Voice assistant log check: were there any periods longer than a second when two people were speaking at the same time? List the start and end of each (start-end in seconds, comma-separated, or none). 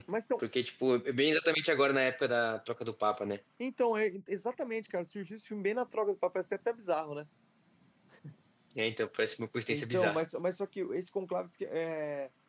none